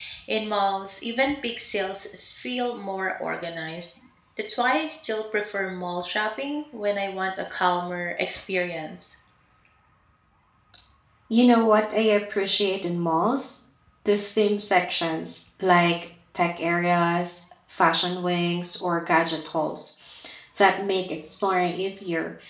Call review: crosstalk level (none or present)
none